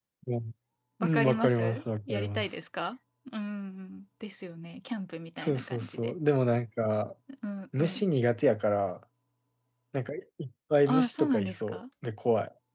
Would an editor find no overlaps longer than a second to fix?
No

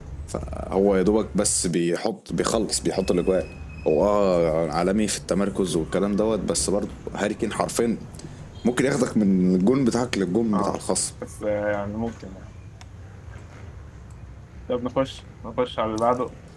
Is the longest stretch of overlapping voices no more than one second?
Yes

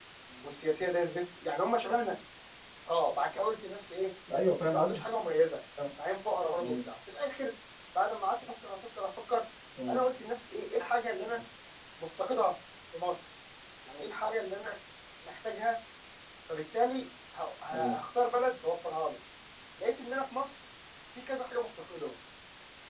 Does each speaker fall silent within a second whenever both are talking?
Yes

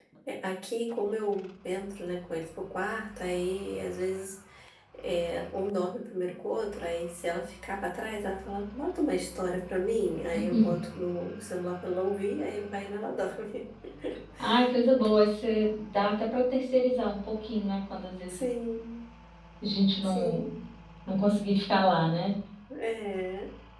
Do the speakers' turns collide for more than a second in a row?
No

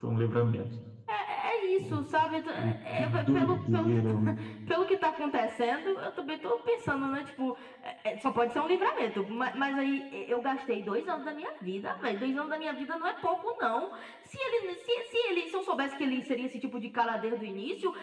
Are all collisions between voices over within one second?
No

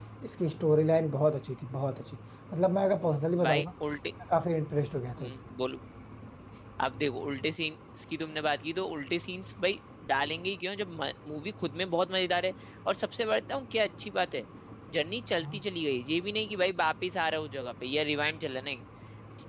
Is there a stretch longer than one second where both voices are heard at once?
No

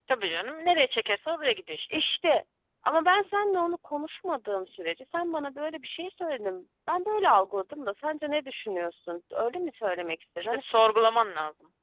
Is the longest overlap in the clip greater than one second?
No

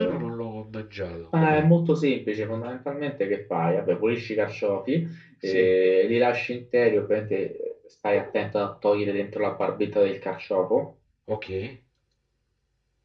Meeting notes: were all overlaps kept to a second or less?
Yes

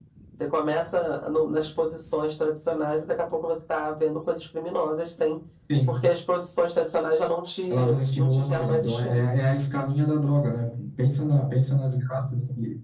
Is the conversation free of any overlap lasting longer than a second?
No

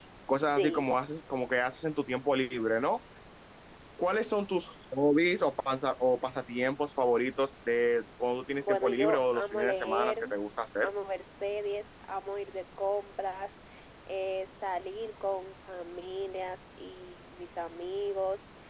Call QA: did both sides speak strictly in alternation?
No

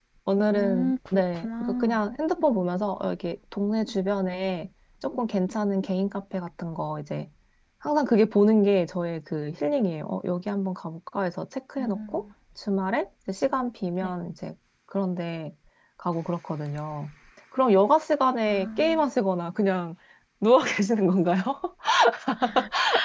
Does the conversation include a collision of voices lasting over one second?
Yes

